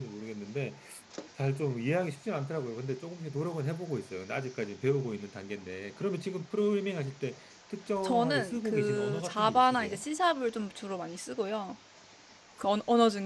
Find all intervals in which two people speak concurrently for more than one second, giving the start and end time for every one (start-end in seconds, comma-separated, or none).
8.0-10.0